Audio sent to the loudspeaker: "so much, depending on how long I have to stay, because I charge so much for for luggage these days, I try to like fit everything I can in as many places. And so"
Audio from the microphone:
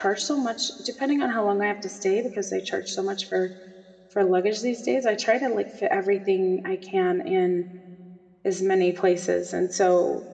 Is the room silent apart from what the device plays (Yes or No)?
Yes